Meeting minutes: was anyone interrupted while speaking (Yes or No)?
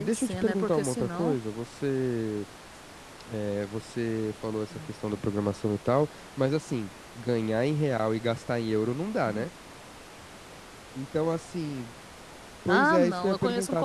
Yes